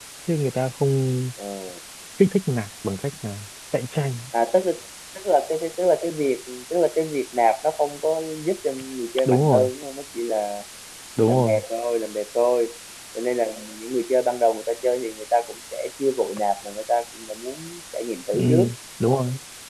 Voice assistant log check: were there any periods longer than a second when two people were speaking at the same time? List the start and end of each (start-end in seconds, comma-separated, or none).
none